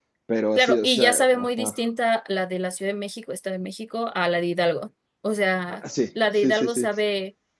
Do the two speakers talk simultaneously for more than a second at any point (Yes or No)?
Yes